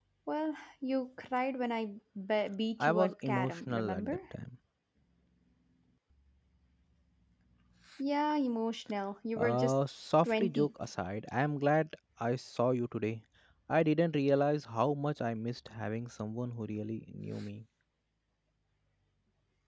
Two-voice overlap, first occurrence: 2.8 s

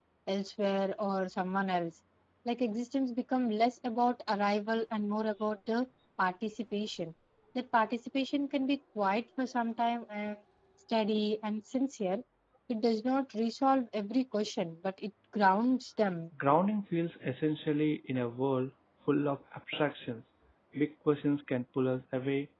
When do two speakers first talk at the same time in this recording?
none

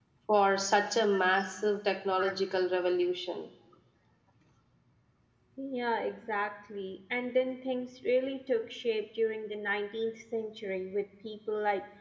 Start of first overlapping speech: none

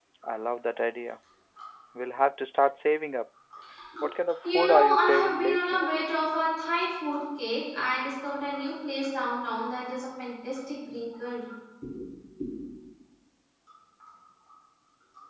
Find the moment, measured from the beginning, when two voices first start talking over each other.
4.4 s

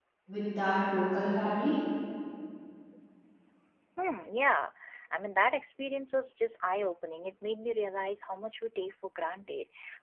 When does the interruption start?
none

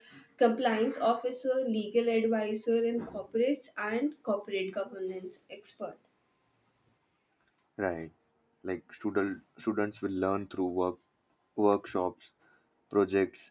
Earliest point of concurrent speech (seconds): none

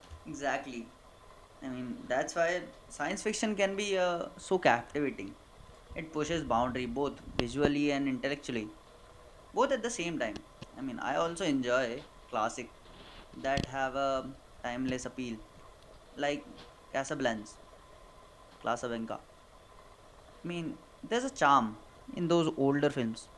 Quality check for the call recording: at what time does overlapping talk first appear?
none

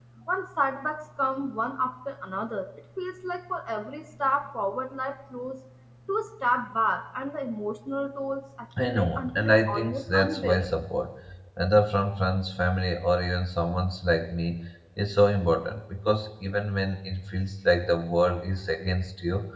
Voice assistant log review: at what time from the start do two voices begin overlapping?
8.8 s

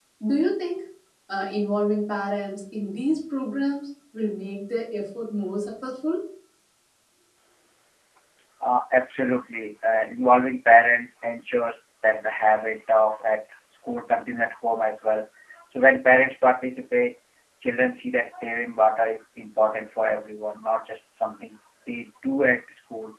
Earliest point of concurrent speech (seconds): none

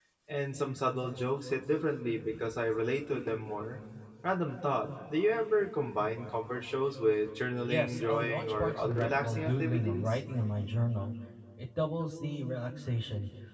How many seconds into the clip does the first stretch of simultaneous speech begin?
7.7 s

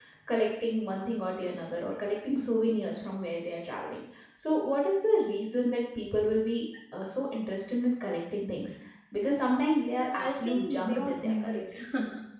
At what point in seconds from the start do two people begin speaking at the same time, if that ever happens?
9.8 s

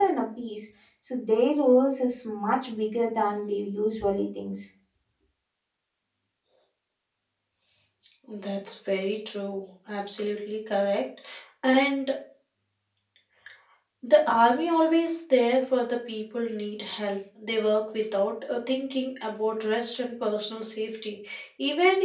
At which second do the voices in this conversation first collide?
none

